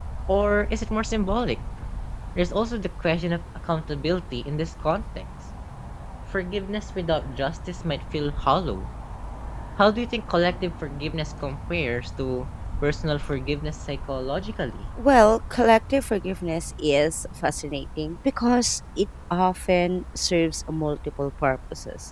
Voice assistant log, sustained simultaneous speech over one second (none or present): none